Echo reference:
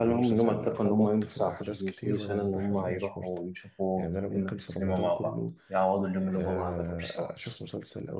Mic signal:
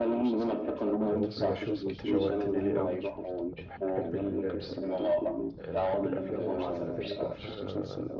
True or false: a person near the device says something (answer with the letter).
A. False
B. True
B